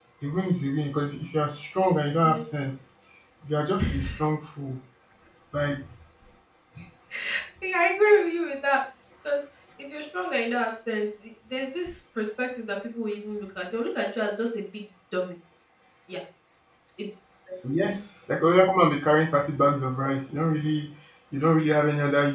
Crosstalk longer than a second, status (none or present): none